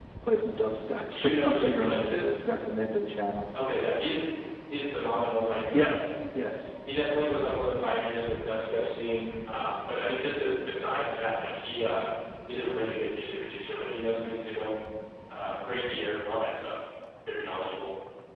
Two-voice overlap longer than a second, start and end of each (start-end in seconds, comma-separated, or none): 1.1-2.4